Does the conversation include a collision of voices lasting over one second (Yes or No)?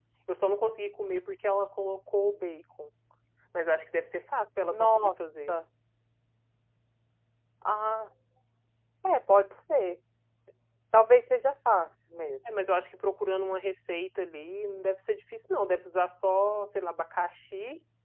No